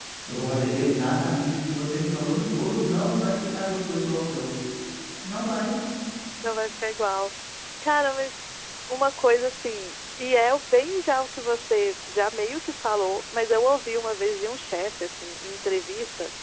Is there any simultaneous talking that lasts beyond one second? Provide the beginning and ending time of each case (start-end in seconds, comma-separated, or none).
none